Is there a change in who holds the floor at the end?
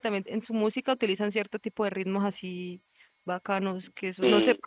No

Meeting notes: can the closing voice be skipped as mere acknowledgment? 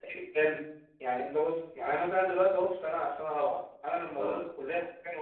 Yes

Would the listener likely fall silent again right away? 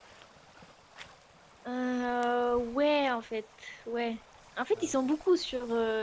Yes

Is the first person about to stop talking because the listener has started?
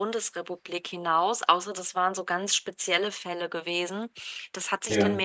No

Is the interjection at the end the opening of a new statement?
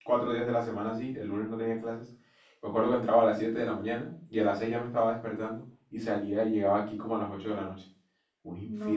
Yes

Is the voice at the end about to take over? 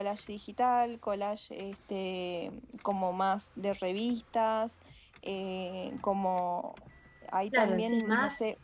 Yes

